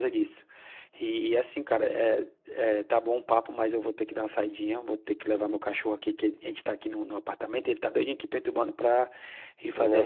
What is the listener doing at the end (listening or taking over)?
listening